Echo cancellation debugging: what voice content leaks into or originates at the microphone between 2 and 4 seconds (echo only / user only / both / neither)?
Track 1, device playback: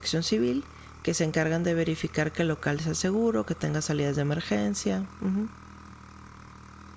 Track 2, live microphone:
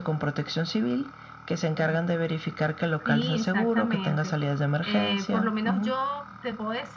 both